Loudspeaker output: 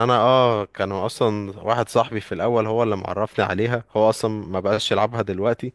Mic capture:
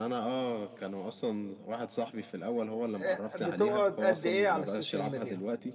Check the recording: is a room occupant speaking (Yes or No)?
Yes